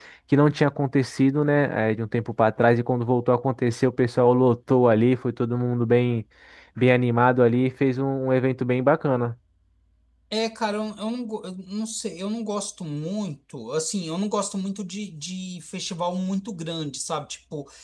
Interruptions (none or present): none